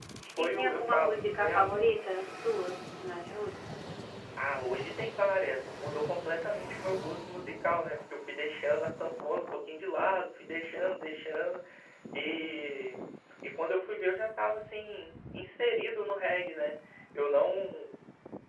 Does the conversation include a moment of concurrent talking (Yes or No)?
Yes